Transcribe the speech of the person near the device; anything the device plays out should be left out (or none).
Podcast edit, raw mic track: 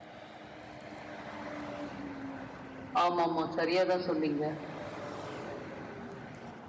ஆமா-ஆமா. சரியா தான் சொன்னீங்க.